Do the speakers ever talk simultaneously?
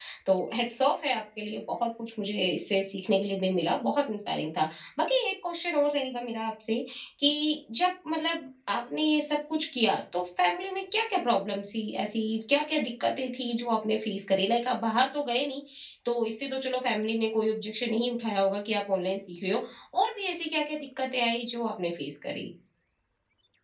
No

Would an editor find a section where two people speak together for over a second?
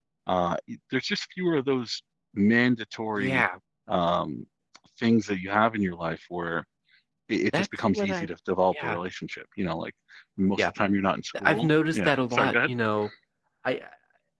Yes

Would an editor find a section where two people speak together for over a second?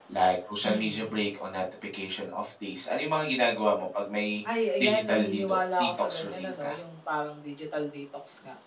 Yes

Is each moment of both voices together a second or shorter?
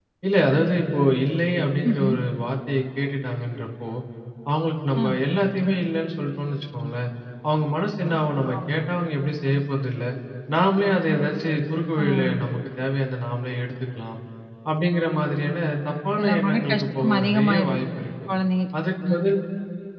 No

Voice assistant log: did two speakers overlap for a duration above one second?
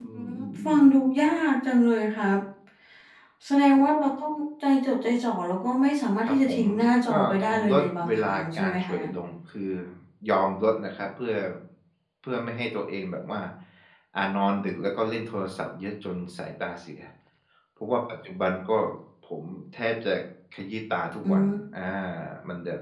Yes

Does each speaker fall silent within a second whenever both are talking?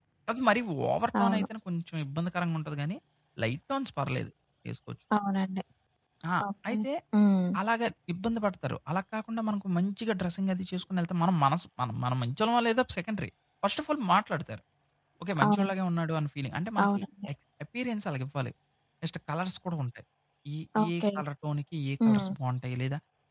Yes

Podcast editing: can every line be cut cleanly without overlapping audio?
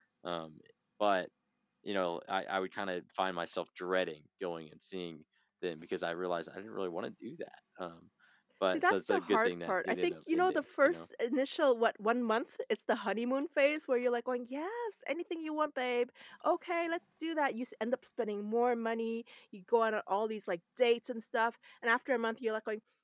No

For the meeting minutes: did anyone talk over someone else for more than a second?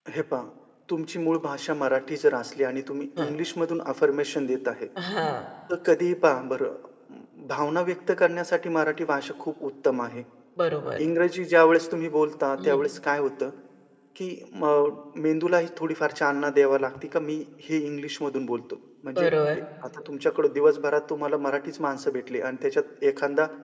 No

